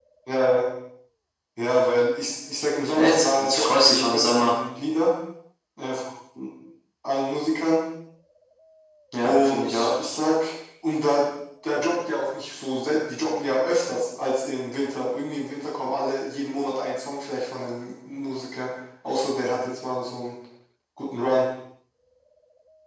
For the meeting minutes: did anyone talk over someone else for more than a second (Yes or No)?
Yes